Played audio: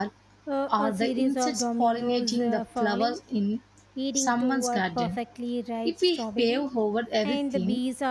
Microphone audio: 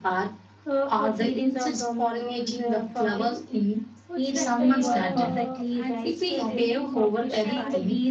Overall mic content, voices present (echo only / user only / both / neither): both